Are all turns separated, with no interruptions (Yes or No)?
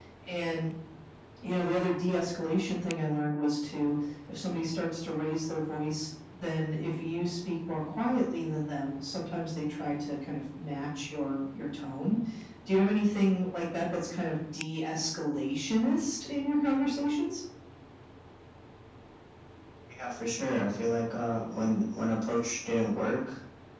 Yes